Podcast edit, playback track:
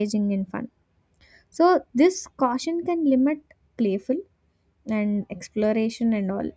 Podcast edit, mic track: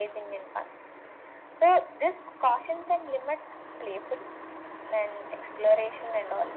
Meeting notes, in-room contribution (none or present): none